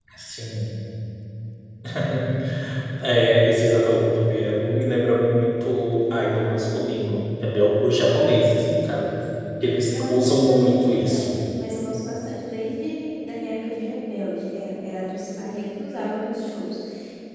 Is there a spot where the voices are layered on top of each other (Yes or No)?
Yes